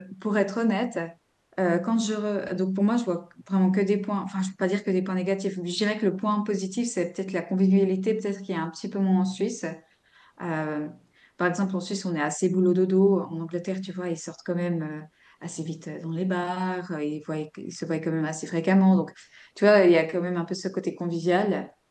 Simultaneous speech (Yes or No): No